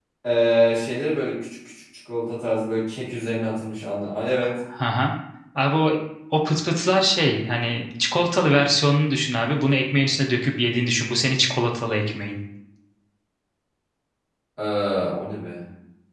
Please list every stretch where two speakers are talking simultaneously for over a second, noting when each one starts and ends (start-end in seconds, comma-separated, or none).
none